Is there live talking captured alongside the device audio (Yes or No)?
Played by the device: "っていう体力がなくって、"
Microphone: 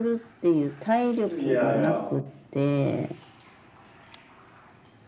Yes